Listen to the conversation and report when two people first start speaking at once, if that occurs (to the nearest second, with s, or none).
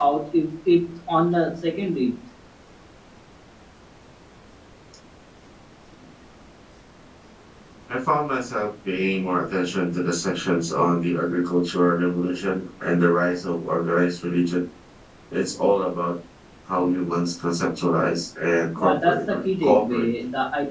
19 s